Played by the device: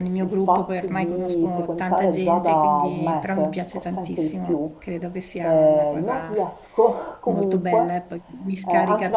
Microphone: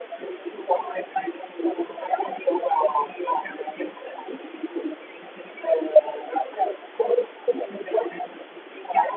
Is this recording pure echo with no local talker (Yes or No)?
Yes